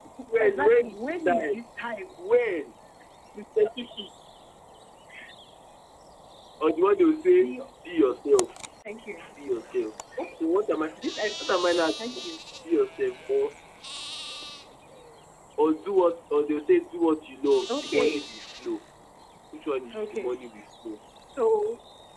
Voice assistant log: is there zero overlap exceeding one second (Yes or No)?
No